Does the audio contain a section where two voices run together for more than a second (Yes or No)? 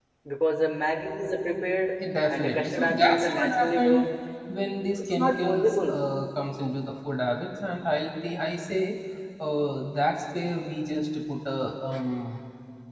Yes